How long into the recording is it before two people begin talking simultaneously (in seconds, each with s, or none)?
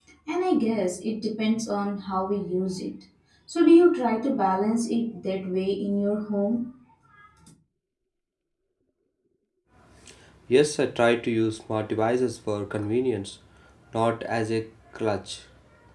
none